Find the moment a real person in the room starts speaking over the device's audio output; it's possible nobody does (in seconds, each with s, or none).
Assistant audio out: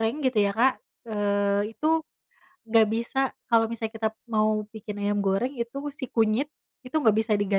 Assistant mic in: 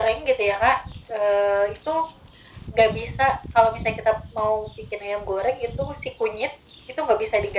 none